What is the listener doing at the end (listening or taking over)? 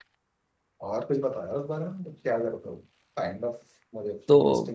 taking over